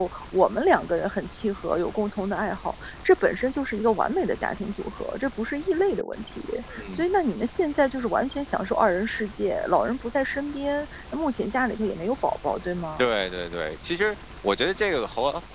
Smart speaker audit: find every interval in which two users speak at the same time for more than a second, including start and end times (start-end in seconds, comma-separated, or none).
none